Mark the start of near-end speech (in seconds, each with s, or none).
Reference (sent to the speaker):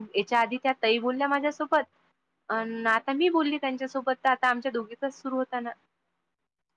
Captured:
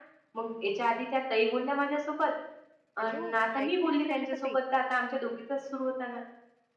3.0 s